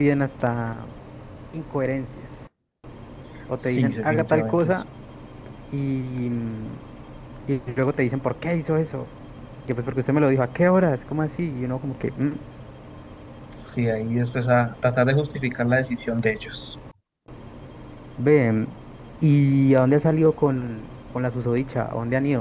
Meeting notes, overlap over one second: present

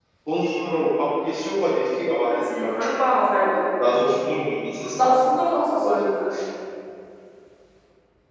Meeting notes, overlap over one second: none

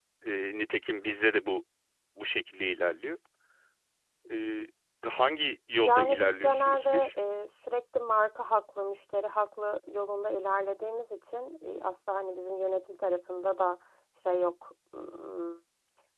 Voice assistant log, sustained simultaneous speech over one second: present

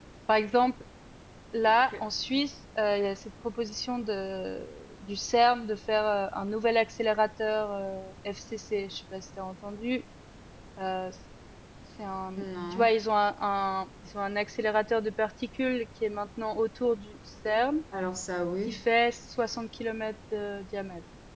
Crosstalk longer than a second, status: none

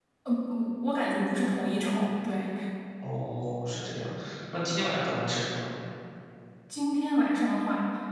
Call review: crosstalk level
none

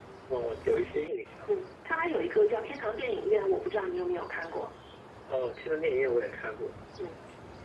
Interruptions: none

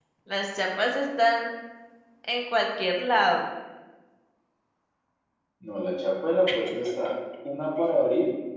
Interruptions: none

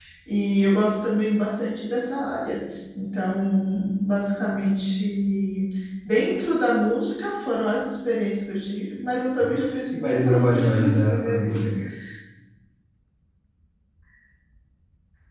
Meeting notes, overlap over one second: present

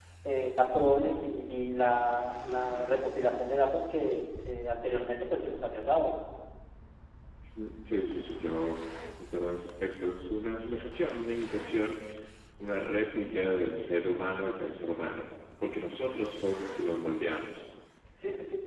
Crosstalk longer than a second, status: none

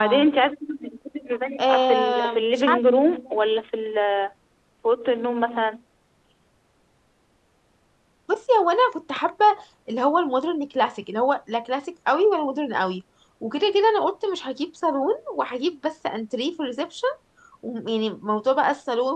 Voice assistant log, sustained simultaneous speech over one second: present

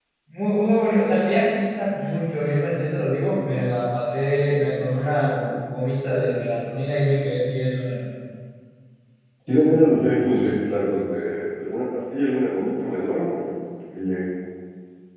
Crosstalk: none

